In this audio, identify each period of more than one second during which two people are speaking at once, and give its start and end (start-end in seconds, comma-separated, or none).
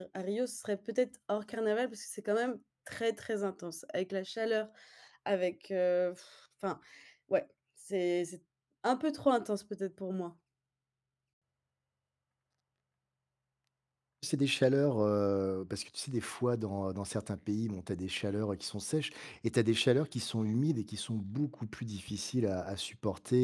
none